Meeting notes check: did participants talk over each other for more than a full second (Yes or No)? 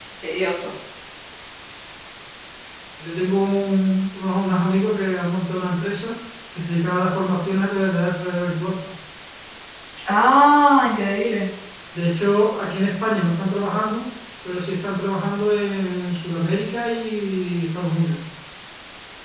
No